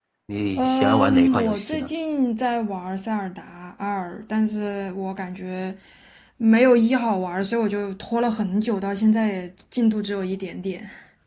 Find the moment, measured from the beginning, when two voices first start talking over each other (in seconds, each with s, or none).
0.6 s